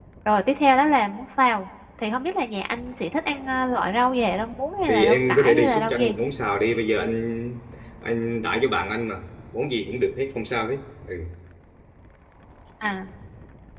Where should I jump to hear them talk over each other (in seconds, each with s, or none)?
4.9 s